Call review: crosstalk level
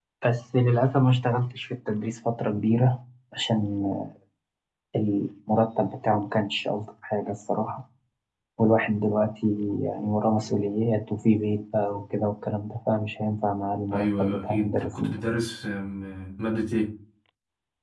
present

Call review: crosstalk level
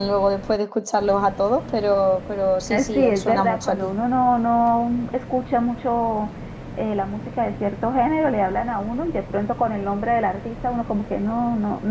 present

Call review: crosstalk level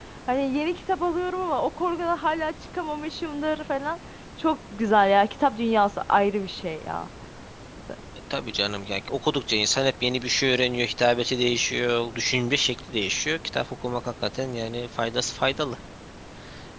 none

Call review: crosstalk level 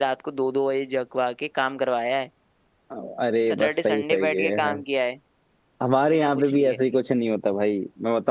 present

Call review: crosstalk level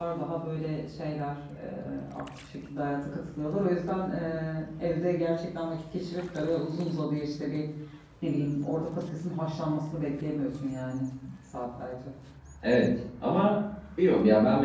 none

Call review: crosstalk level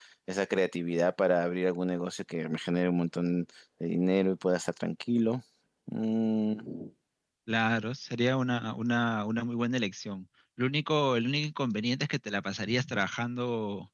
none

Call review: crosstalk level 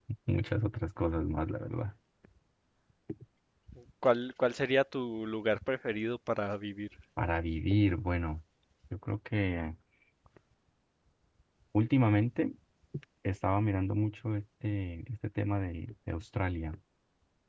none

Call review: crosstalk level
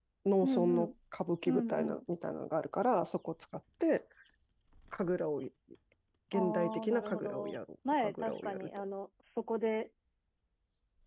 present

